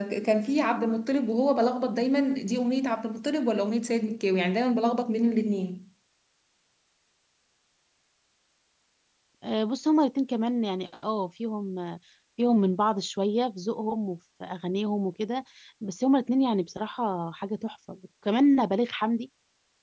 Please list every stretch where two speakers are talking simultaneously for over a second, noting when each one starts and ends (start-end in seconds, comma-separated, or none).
none